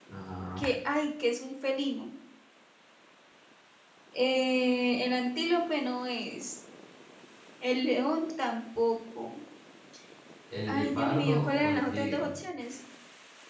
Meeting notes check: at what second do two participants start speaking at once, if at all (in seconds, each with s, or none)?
10.7 s